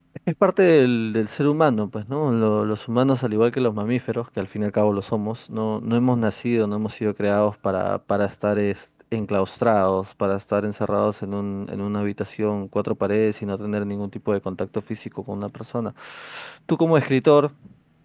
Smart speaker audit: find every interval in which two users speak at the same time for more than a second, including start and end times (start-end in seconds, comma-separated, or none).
none